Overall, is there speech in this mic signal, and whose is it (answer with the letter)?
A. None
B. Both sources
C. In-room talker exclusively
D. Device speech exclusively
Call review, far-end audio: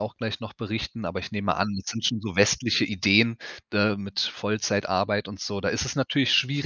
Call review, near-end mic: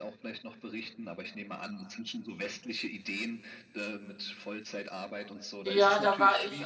B